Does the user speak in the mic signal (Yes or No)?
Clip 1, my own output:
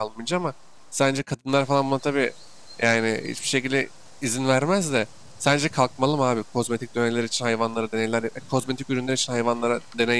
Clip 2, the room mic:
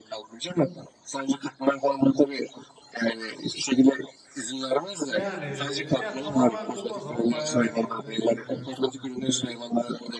Yes